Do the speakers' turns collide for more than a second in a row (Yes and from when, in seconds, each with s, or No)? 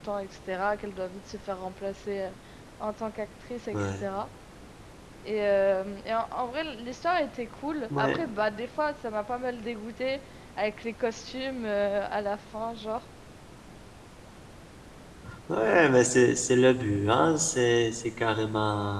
No